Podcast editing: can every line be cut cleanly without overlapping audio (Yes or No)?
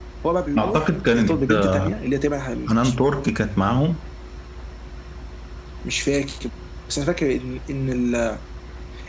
No